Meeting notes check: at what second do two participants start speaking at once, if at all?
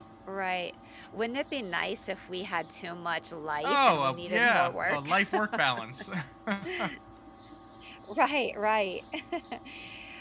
3.6 s

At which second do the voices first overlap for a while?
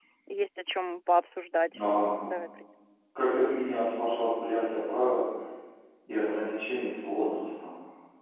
none

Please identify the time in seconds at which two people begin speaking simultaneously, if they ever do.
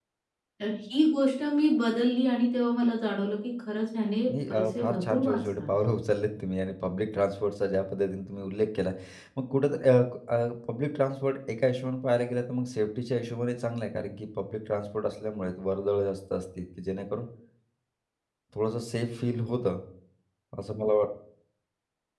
4.3 s

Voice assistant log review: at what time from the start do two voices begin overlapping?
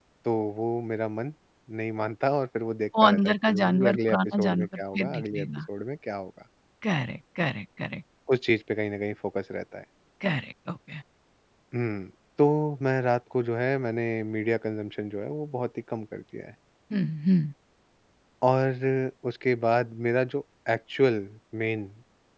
2.9 s

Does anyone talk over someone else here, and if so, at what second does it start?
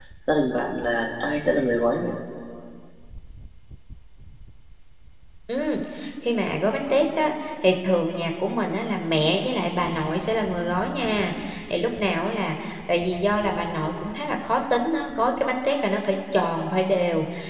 none

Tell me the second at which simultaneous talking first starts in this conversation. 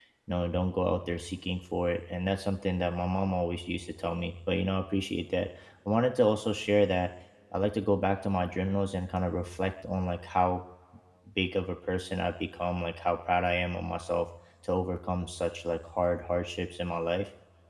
none

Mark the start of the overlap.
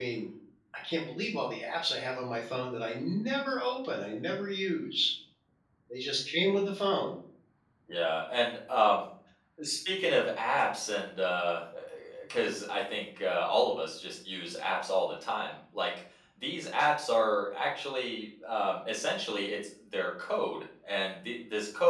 none

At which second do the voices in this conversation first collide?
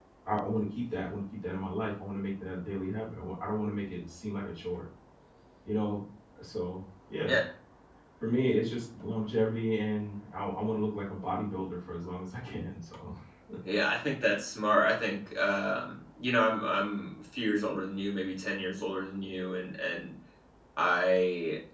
none

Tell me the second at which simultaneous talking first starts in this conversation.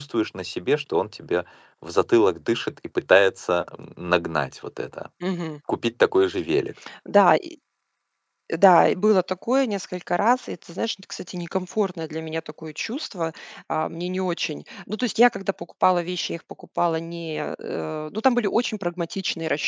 none

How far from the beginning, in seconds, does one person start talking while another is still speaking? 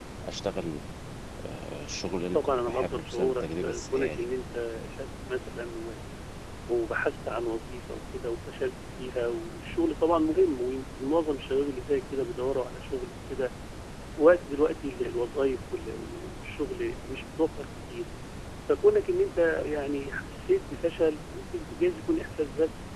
2.3 s

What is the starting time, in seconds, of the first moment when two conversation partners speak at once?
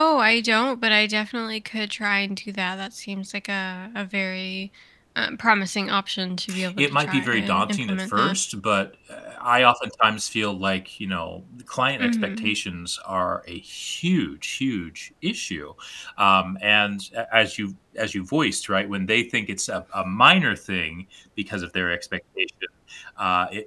6.8 s

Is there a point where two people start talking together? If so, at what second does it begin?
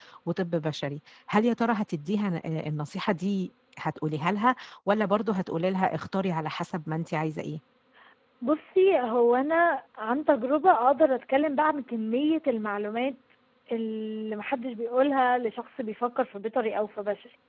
none

